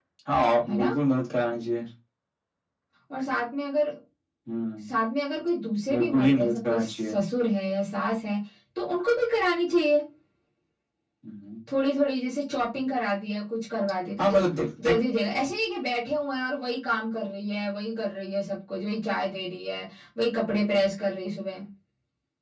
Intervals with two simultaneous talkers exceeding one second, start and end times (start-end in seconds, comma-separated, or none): 5.9-7.2